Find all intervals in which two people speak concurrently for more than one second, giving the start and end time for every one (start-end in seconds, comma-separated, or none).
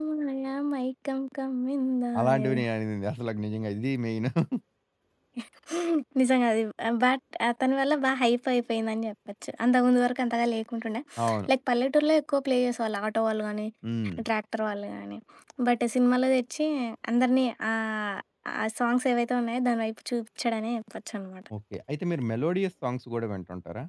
none